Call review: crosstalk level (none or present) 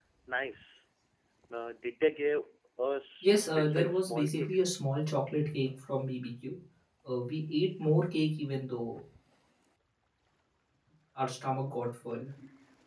present